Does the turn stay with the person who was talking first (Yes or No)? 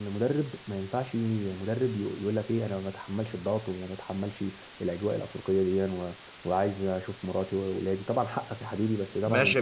No